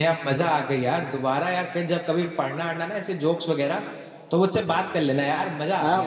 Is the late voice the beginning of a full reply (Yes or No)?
Yes